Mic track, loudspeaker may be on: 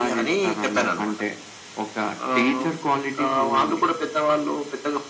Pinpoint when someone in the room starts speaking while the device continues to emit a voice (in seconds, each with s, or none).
none